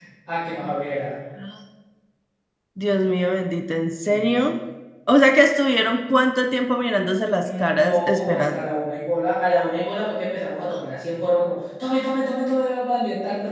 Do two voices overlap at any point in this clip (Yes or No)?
Yes